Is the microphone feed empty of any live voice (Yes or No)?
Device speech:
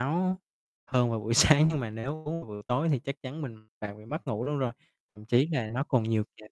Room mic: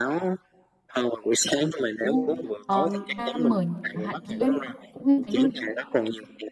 No